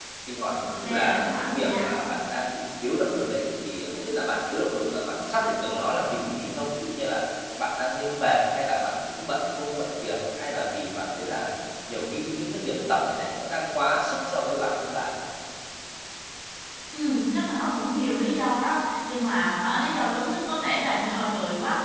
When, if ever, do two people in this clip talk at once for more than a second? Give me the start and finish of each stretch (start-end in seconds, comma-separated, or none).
0.7-1.9